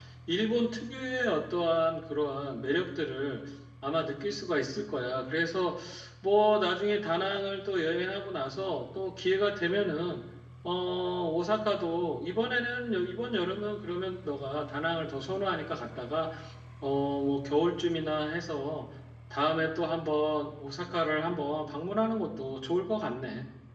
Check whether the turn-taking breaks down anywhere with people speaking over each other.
No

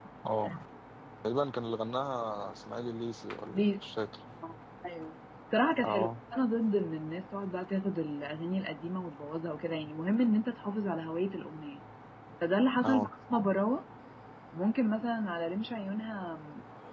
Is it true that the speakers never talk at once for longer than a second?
Yes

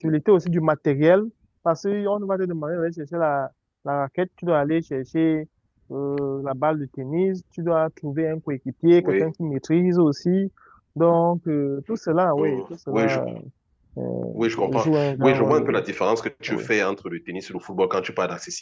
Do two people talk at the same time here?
Yes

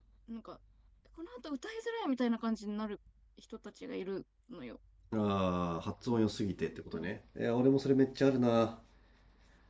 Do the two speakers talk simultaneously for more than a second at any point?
No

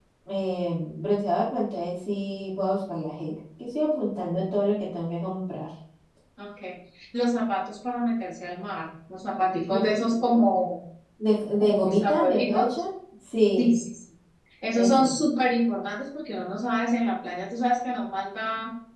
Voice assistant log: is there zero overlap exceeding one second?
No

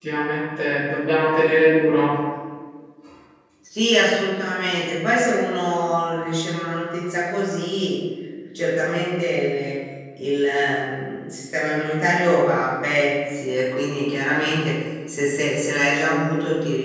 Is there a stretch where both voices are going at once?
No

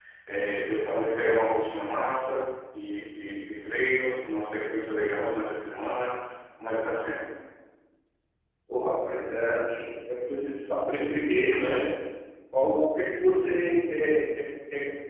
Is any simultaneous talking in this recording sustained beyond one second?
No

